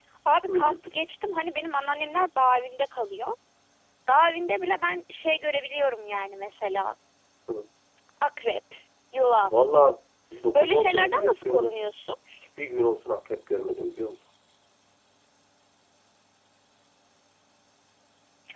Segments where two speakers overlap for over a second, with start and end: 10.6-11.8

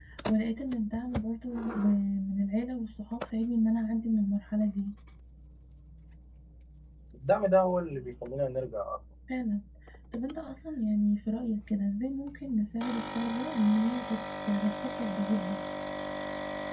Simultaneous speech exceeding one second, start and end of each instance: none

